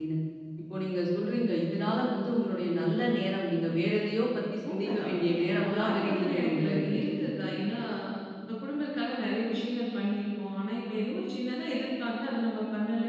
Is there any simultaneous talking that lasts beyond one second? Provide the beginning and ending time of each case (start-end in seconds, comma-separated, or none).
5.6-6.9